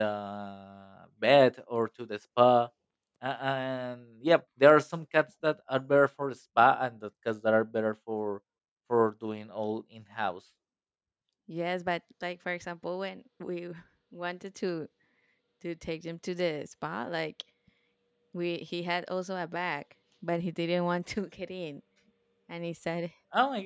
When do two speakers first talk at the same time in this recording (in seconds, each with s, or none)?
none